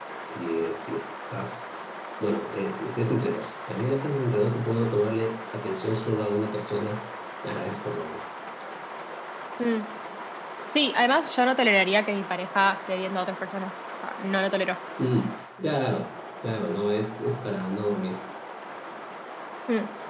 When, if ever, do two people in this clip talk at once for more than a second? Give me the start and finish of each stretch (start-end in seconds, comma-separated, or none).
none